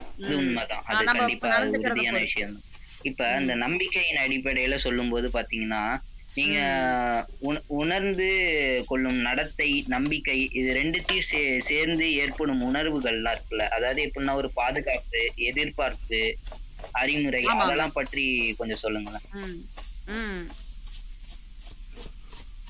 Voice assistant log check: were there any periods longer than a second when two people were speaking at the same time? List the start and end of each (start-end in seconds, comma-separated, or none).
0.9-2.5